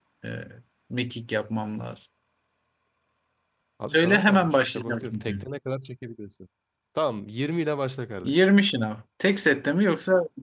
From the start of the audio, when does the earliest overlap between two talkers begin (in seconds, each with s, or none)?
3.9 s